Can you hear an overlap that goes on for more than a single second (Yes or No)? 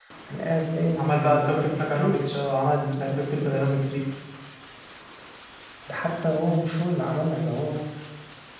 Yes